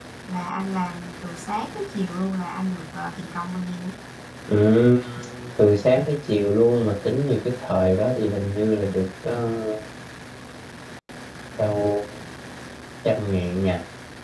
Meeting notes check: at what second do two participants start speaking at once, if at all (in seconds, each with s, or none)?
none